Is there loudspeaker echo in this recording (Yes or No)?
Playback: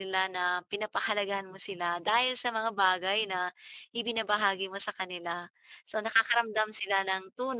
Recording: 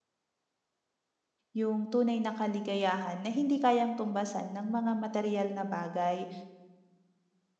No